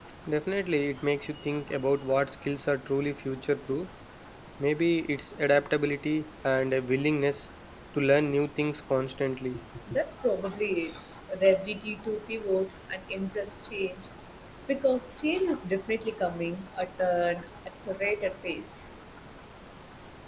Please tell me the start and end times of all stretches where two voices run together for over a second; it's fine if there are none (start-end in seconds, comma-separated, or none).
none